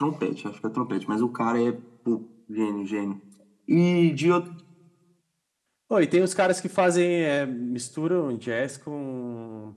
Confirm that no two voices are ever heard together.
Yes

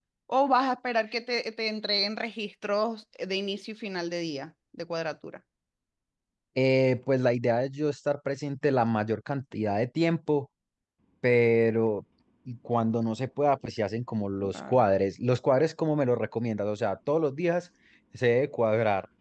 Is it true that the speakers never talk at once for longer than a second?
Yes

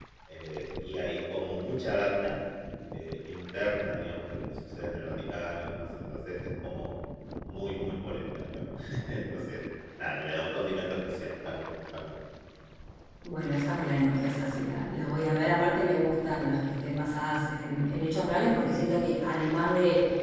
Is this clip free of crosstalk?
Yes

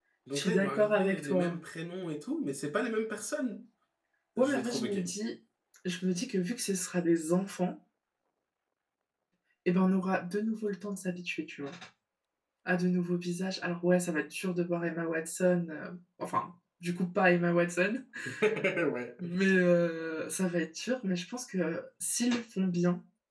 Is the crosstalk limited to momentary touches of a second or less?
No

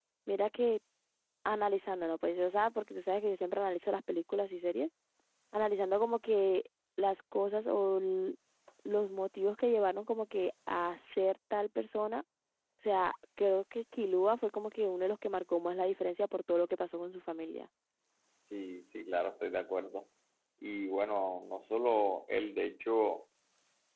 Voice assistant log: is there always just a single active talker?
Yes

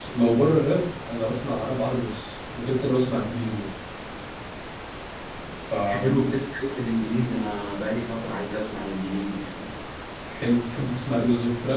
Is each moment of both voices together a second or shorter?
Yes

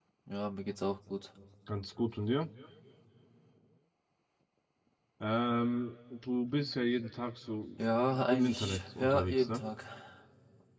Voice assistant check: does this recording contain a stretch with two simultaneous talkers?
Yes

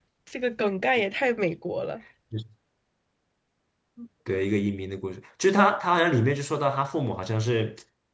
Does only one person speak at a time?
Yes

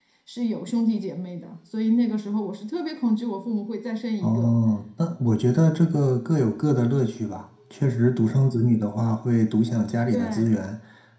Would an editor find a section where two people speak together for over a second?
No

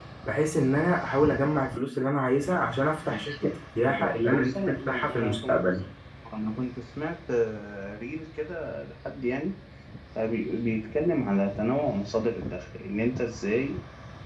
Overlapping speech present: Yes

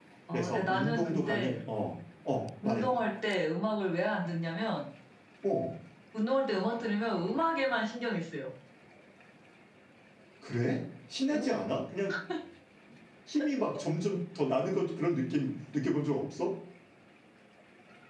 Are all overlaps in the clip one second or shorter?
No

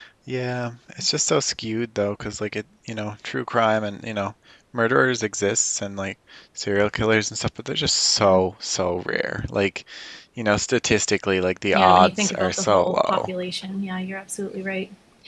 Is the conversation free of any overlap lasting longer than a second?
No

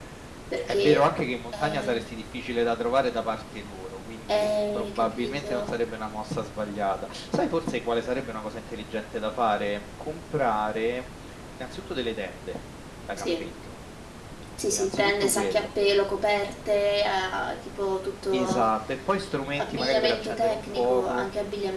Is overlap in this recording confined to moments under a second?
No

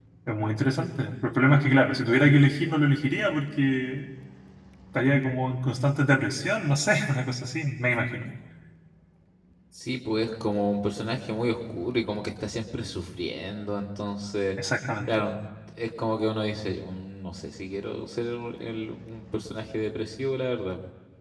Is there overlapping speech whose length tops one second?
No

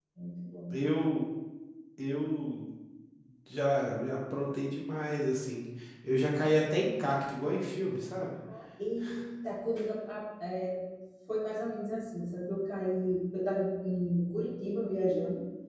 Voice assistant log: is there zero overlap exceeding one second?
Yes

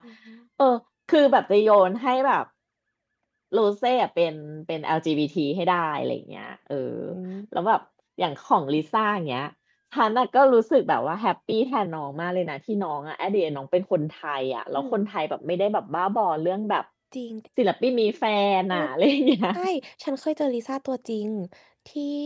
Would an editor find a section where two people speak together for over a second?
No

